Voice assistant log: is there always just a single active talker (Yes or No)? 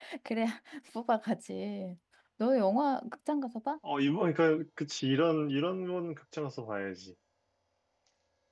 Yes